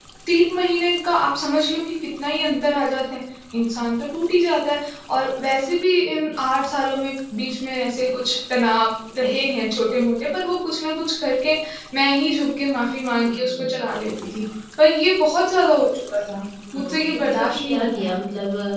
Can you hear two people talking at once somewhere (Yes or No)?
Yes